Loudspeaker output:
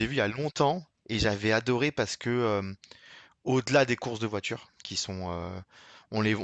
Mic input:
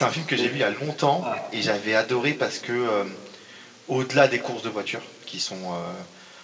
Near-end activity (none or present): present